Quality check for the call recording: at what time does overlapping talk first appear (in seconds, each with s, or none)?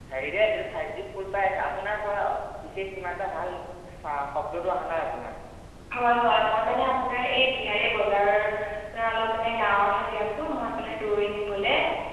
none